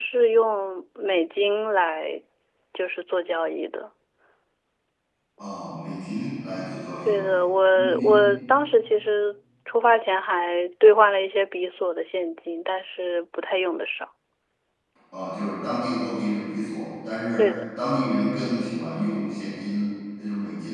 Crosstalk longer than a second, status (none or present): none